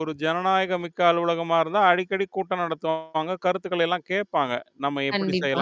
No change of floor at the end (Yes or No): Yes